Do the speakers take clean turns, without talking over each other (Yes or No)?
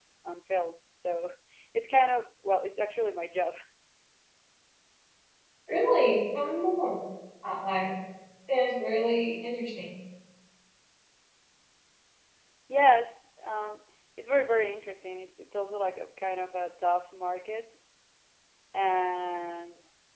Yes